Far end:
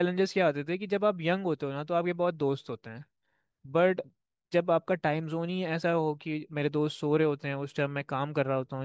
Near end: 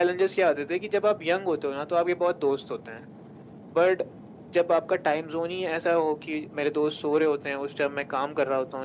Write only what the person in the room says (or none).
none